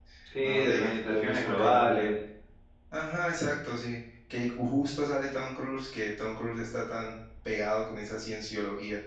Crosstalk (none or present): present